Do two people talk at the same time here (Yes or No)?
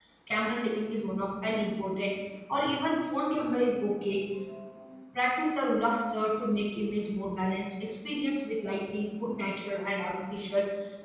No